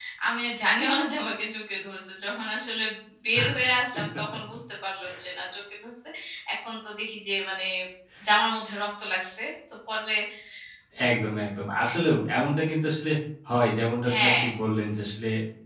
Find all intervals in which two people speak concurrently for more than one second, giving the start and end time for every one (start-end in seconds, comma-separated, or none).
none